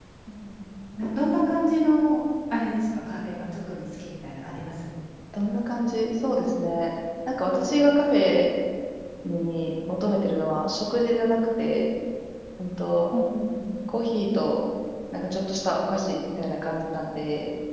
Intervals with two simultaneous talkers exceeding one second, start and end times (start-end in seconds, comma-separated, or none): none